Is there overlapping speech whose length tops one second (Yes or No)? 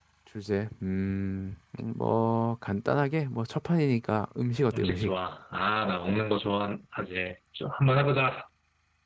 No